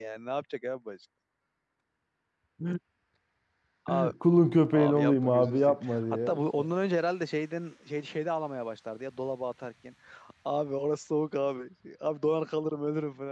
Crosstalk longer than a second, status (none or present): present